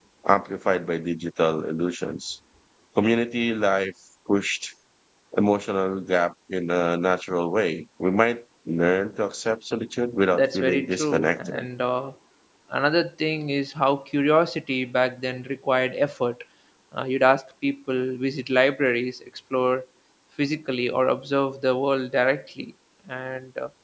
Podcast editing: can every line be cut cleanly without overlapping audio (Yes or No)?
No